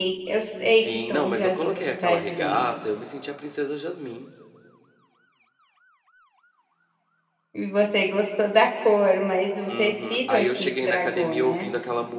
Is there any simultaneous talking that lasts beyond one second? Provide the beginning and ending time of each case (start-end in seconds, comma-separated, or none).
0.7-2.6, 9.7-11.7